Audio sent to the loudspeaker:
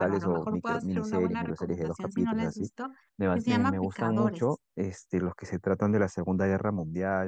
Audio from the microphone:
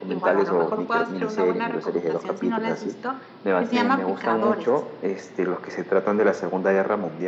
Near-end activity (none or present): none